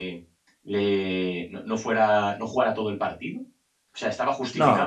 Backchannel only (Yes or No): Yes